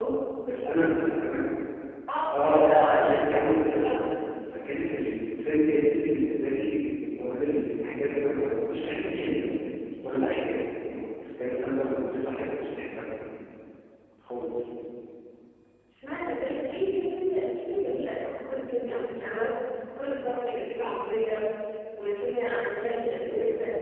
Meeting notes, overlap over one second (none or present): present